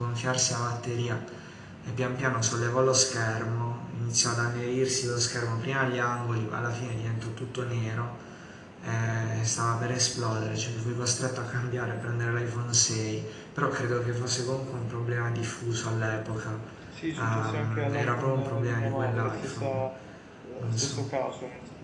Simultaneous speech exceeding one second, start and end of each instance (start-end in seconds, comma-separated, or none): 17.1-19.8